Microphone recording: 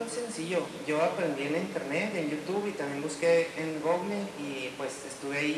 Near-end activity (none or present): none